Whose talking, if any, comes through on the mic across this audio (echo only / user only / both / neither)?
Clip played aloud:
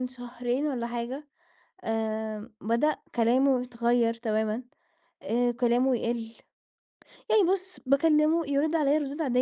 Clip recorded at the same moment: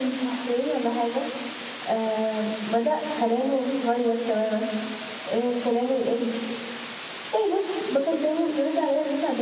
echo only